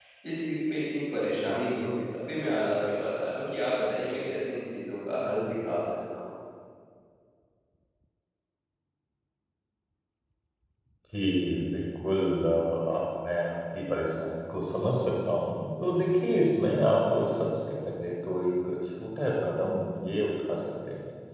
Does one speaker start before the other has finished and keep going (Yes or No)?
No